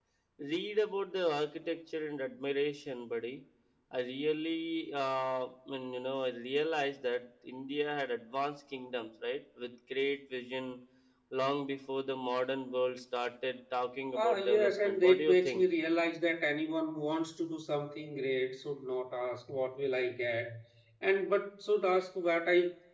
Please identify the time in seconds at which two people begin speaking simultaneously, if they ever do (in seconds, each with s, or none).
14.2 s